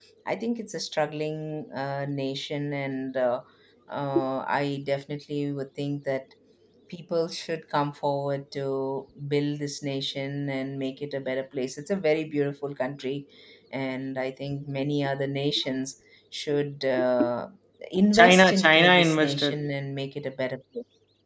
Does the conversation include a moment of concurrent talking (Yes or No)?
Yes